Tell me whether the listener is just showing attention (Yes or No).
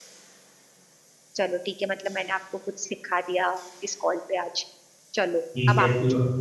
No